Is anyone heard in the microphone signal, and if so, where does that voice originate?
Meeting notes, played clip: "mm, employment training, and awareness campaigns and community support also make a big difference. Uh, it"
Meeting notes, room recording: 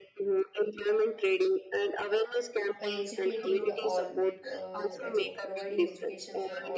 both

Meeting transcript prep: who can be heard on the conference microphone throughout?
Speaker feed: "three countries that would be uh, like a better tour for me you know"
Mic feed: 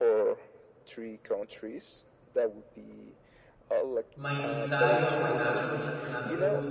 both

